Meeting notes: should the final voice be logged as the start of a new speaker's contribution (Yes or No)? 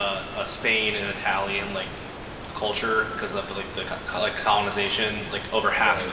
No